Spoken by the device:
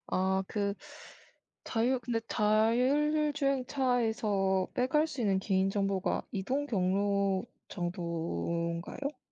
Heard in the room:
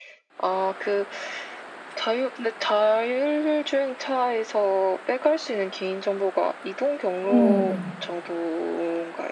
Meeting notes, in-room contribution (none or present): present